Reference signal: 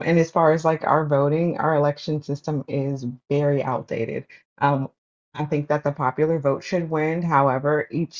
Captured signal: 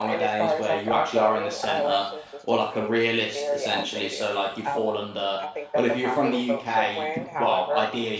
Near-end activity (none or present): present